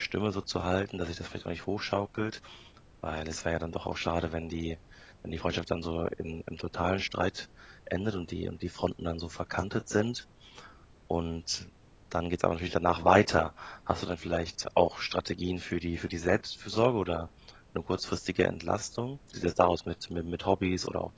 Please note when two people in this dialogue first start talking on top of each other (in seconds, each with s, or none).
none